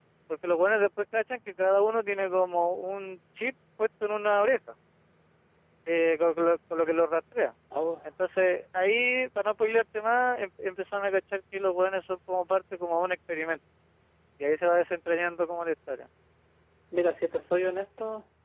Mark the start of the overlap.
none

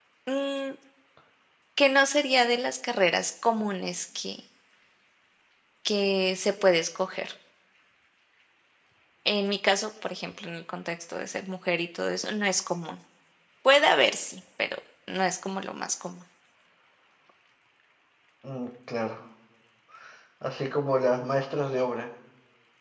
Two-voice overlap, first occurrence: none

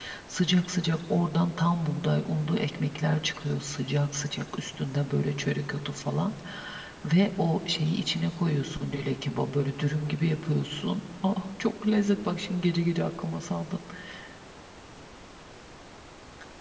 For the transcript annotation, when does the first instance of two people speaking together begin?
none

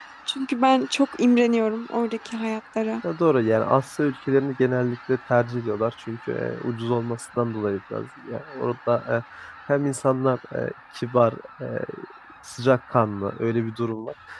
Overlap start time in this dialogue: none

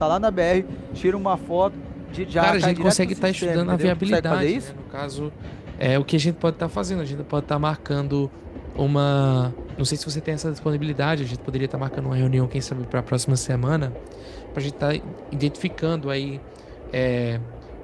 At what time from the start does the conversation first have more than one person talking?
2 s

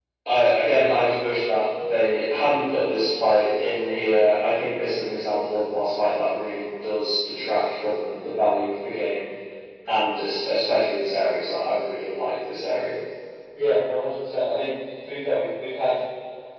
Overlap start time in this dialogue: none

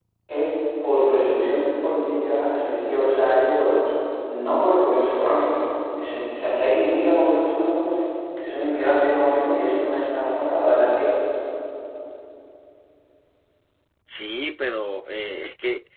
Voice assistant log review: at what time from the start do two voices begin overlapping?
none

